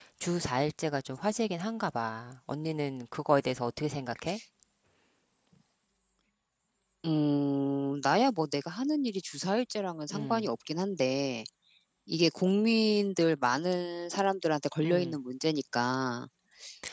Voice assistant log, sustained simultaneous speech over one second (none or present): none